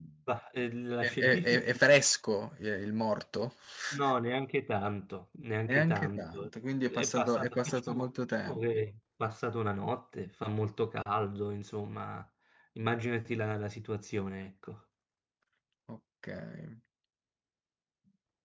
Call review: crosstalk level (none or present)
present